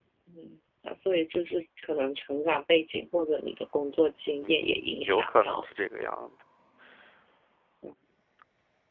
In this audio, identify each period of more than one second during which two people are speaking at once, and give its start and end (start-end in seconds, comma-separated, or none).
4.4-5.7